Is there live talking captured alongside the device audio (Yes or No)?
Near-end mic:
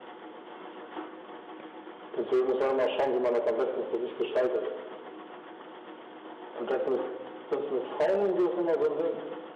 No